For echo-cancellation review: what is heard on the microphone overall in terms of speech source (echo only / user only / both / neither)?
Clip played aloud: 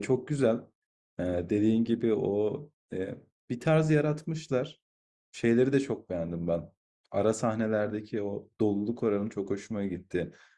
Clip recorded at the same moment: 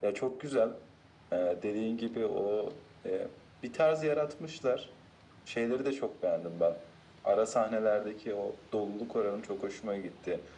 echo only